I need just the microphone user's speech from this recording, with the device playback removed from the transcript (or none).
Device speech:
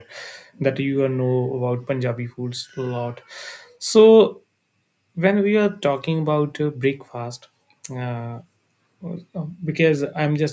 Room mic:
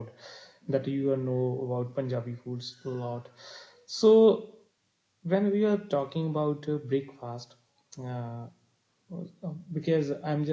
none